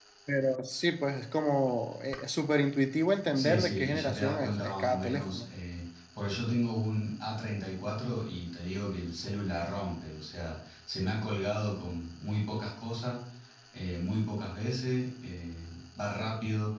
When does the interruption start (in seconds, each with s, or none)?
3.4 s